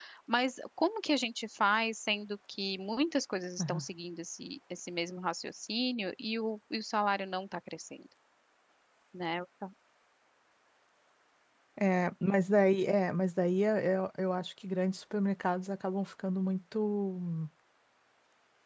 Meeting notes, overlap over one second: none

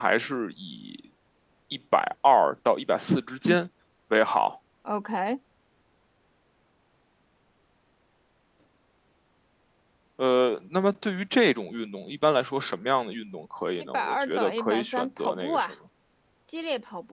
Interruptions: present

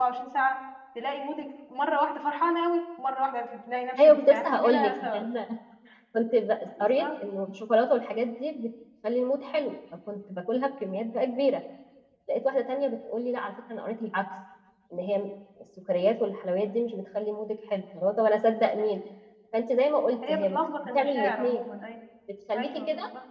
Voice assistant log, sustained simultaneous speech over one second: present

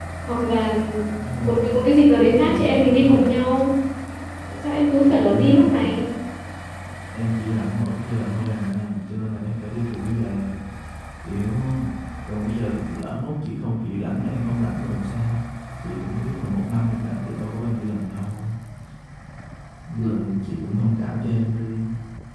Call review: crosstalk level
present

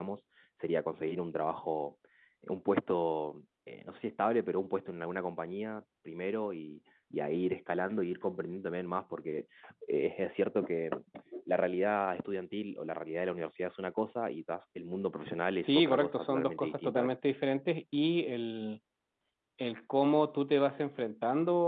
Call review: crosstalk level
present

